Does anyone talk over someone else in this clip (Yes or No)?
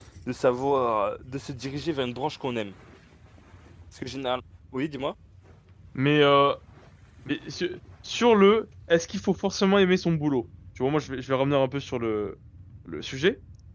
No